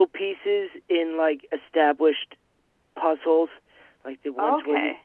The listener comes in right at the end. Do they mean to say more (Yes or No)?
No